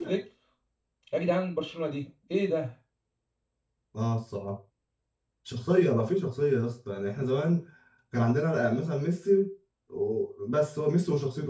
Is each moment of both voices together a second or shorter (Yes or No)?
Yes